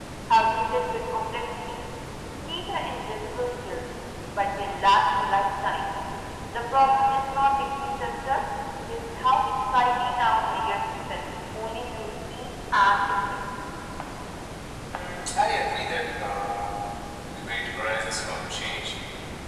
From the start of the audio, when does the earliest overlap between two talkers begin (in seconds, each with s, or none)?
none